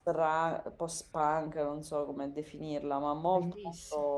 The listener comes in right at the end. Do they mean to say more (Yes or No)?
No